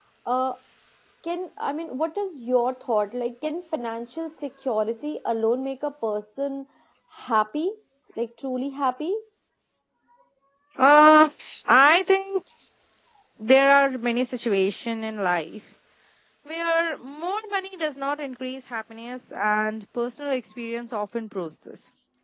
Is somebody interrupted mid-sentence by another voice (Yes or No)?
No